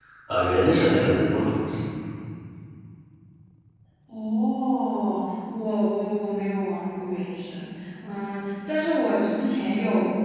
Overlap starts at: none

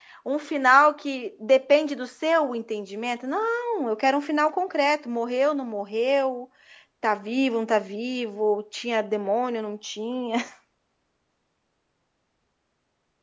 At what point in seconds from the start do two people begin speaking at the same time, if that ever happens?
none

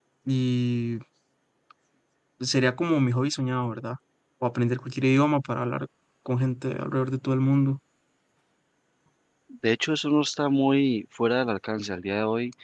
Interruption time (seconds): none

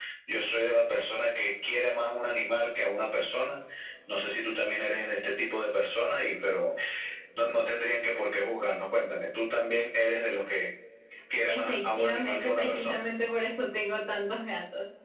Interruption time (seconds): 11 s

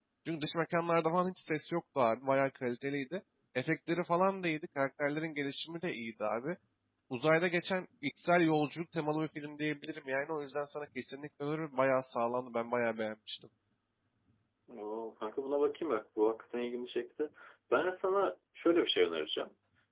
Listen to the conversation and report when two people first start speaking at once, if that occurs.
none

